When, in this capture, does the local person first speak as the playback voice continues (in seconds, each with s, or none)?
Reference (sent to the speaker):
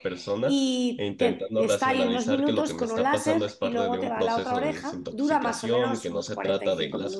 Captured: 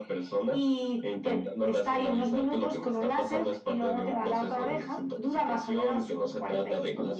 none